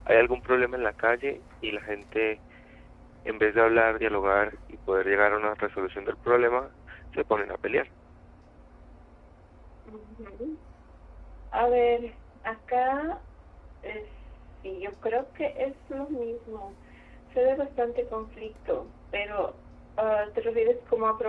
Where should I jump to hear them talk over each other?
none

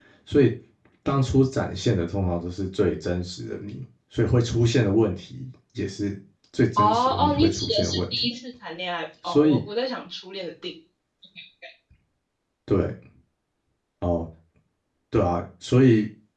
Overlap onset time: 7 s

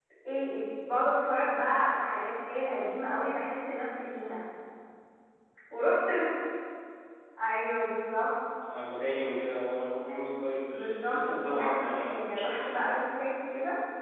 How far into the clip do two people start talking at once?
11 s

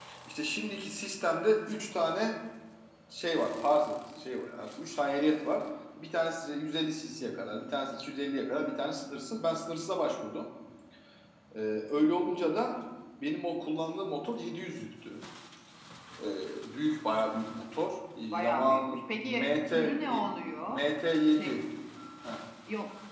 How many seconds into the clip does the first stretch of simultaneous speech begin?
18 s

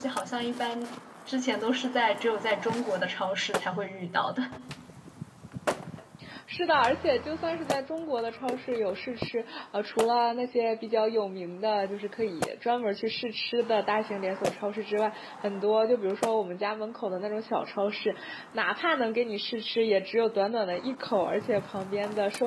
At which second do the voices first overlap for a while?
none

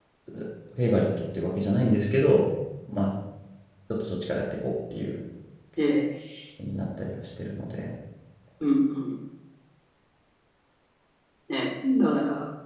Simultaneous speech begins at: none

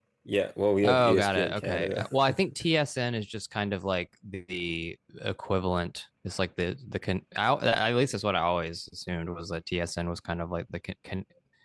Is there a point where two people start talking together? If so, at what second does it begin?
1 s

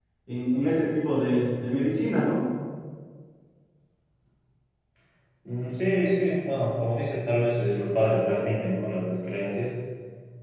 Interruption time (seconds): none

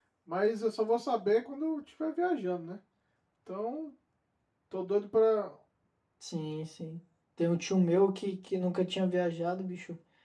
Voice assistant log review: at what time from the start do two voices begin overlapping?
none

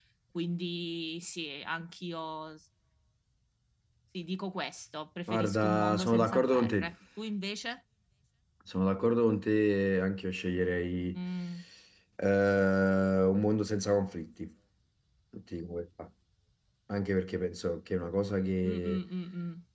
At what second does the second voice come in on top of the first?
5 s

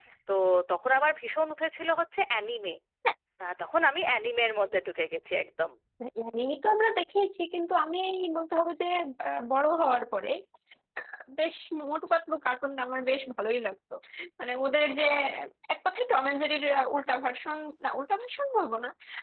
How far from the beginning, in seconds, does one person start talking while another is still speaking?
none

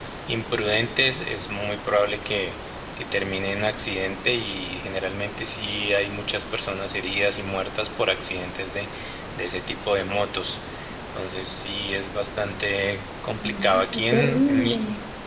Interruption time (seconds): 13 s

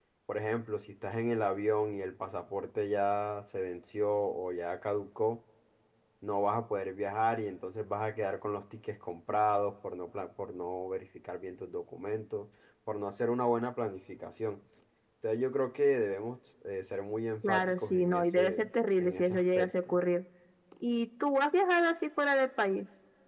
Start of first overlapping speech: 17 s

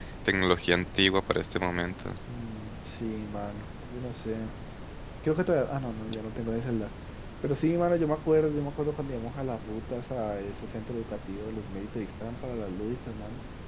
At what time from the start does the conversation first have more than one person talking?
none

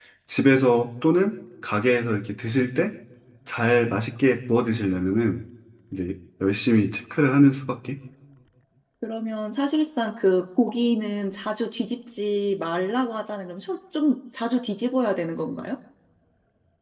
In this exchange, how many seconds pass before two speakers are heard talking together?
none

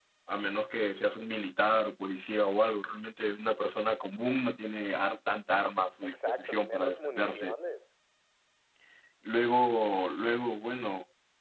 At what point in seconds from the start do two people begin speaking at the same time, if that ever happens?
6 s

